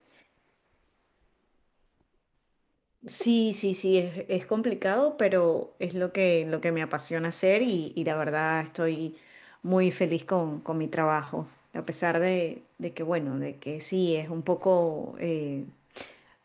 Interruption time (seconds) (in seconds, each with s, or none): none